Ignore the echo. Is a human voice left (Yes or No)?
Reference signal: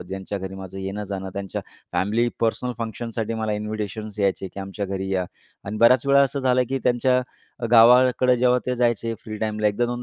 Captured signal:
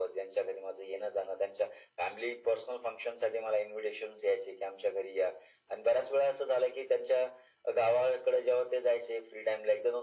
No